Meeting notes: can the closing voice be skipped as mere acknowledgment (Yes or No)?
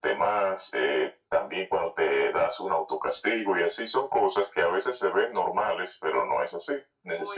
Yes